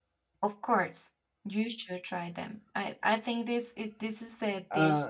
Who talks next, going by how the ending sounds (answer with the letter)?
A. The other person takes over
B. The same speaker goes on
B